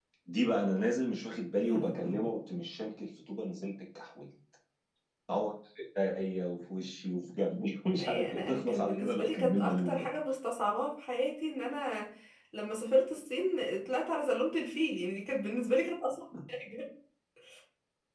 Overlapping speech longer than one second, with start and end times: 8.0-10.1

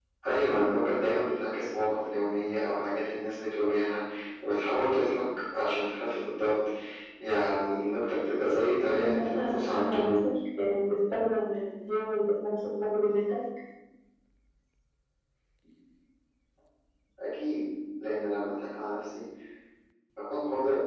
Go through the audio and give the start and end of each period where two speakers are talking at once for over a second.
8.9-10.2

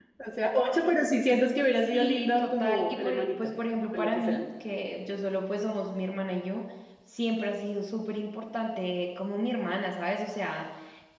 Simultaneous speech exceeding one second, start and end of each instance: 1.9-3.5

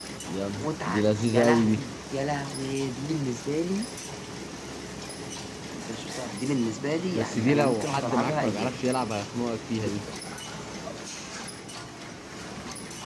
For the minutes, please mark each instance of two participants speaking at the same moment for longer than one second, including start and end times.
0.6-1.8, 7.1-8.8

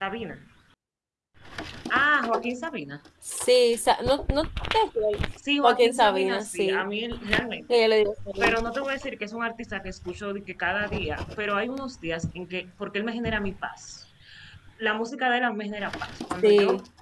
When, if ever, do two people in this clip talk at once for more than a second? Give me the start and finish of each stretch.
5.6-6.8

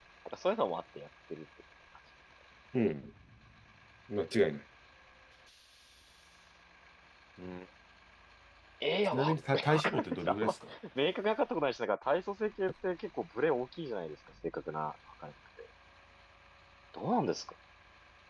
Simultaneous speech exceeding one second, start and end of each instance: 9.1-10.5

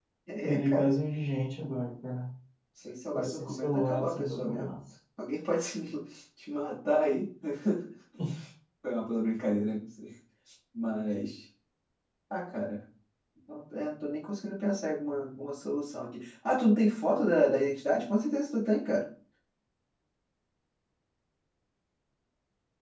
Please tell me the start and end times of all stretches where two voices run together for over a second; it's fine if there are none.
3.1-4.7

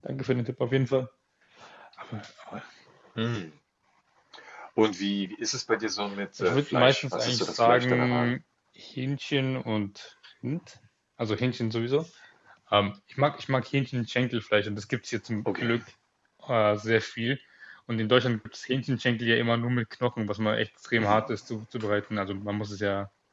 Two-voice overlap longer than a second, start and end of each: 6.4-8.3

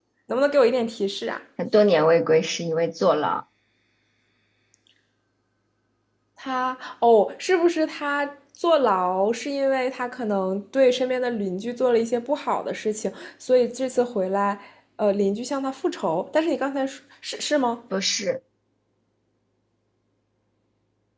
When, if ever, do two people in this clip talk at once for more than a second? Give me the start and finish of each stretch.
none

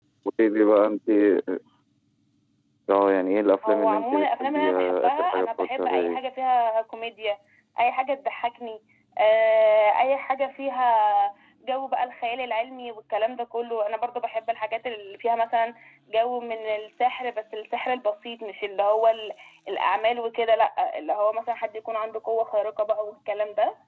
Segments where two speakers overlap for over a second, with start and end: 3.7-6.3

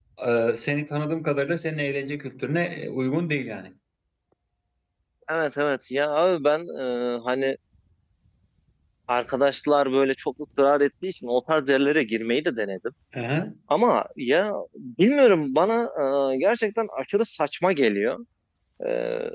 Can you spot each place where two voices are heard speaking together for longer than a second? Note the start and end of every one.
none

